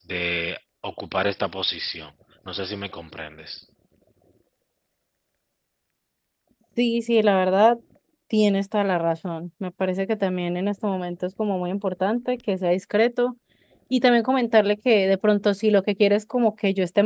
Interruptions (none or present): none